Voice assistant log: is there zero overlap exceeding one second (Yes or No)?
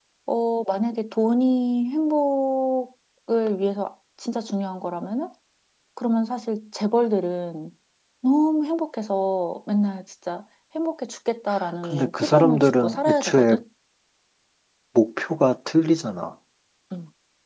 No